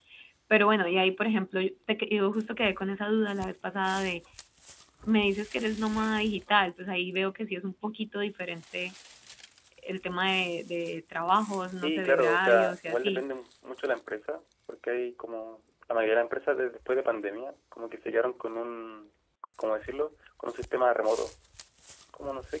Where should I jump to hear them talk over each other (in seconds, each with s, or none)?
11.8 s